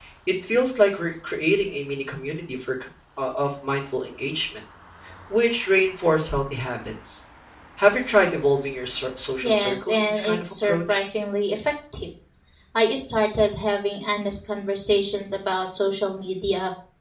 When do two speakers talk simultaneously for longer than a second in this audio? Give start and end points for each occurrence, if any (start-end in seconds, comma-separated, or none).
9.4-11.1